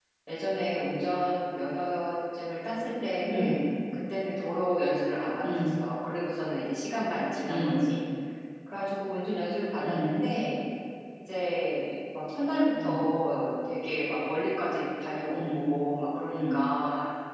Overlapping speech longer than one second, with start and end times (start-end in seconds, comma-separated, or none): none